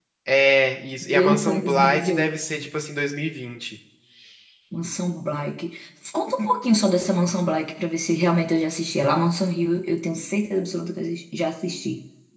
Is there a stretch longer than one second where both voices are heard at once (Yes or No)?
Yes